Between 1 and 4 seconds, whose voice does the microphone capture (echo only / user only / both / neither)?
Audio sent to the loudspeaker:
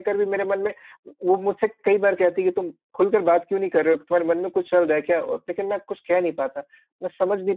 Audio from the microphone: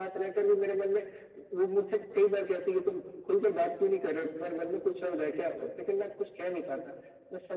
echo only